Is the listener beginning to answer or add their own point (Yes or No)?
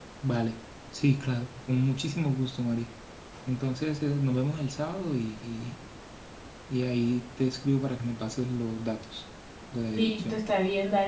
Yes